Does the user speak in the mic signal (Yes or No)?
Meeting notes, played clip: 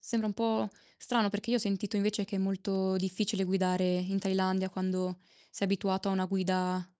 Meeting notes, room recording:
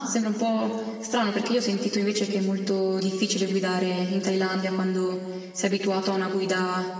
No